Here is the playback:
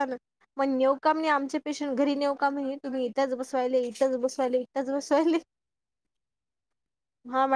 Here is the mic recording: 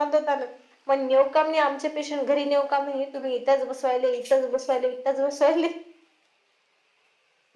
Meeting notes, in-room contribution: none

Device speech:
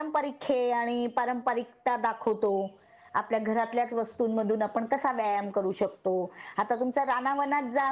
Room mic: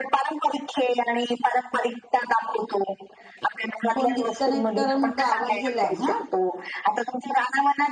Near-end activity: present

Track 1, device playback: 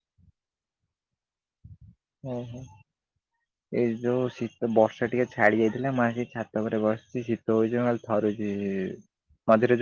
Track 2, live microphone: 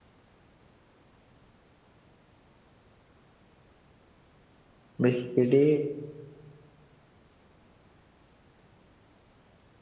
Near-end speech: present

